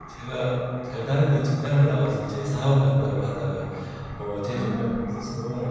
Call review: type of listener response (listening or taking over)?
listening